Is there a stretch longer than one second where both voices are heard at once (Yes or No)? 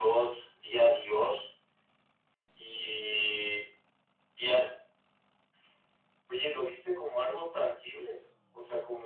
No